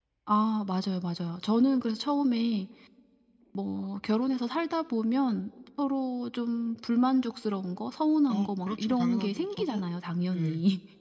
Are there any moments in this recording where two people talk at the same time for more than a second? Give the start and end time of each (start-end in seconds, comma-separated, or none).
8.3-9.8